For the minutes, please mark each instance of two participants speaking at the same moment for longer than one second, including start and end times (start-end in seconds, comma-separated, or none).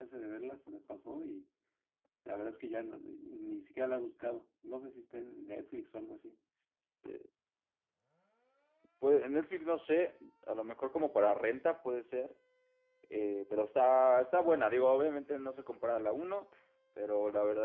none